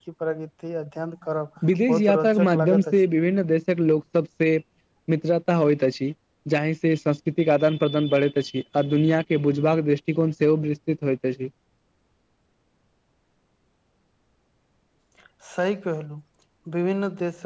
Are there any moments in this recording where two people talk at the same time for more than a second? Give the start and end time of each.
1.7-3.0

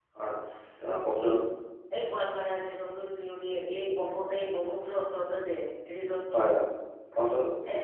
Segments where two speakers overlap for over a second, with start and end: none

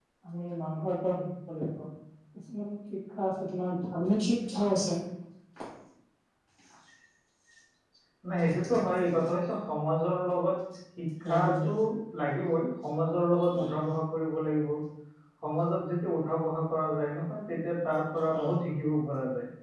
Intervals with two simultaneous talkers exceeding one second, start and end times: none

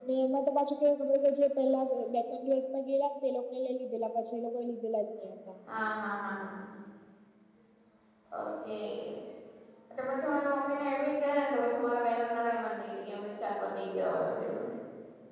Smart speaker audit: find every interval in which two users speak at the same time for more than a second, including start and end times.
none

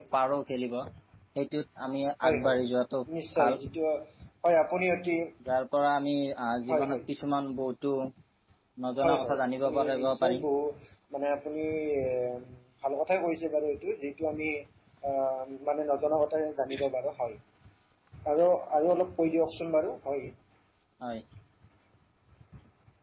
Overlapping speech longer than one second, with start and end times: 9.0-10.4

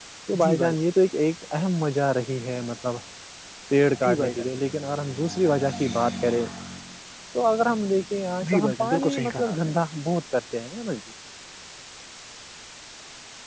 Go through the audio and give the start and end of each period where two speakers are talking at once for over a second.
8.5-9.7

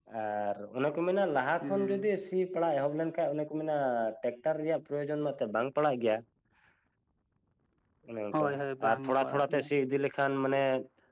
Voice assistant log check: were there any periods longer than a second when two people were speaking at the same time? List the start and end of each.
8.3-9.7

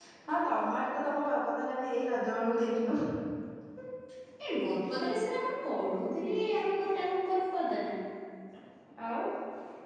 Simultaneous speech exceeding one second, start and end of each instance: none

